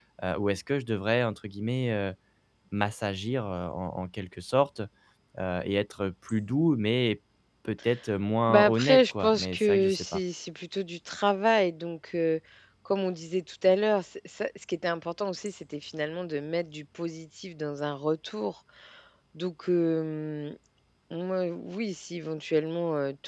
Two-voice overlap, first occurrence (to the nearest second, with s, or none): 8 s